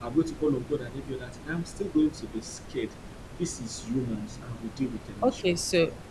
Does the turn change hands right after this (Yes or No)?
Yes